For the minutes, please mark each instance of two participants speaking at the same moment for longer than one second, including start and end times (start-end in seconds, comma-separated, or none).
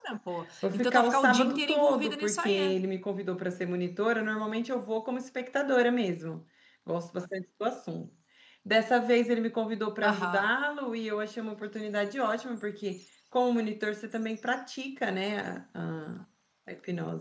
0.6-2.8